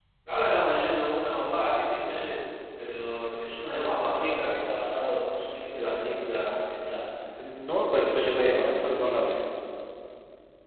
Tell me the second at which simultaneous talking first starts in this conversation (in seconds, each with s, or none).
7.8 s